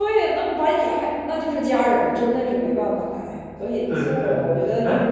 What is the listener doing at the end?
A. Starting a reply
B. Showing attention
A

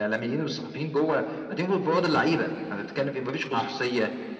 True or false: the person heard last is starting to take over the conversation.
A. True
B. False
B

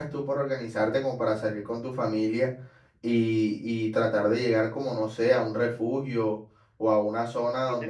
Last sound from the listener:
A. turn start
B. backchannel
A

